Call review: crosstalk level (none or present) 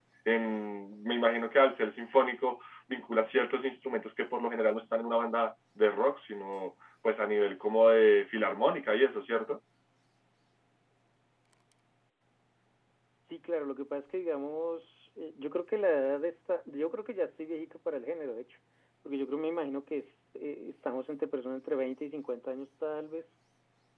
none